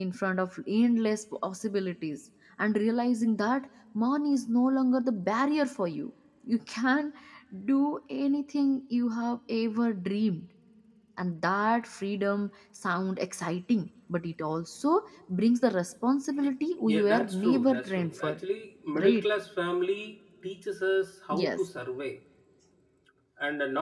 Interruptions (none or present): present